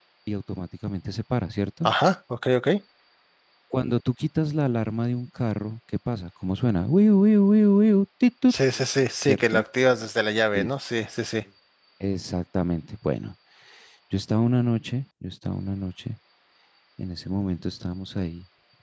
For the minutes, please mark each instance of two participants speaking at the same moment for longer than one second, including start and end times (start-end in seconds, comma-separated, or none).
none